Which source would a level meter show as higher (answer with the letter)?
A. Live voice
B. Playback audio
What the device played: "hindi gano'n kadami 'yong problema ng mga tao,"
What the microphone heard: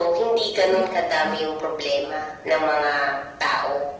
B